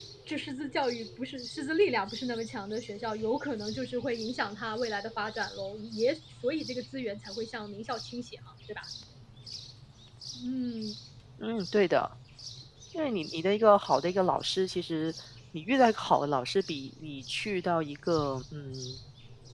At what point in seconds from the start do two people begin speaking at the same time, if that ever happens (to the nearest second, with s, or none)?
none